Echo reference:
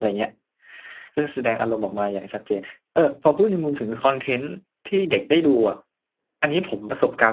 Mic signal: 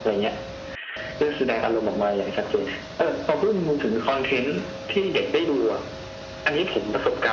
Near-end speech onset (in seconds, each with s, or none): none